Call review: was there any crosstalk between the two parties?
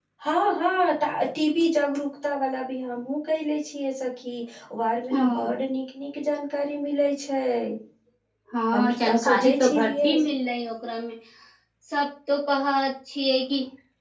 Yes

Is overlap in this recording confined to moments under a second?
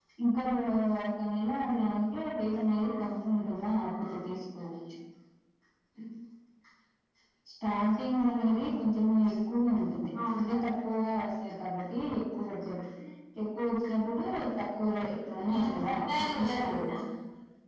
No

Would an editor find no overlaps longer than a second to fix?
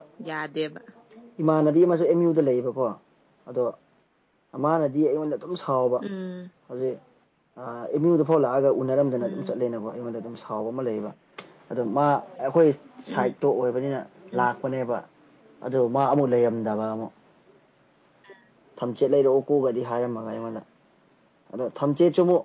Yes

